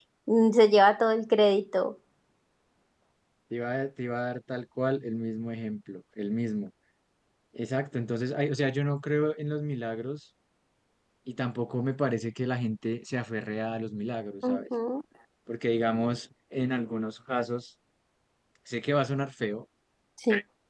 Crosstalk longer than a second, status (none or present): none